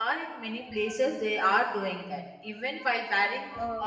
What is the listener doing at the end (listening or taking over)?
listening